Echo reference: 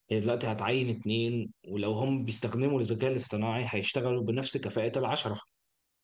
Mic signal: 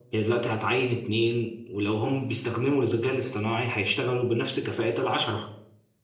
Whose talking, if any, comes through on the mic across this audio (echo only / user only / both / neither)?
echo only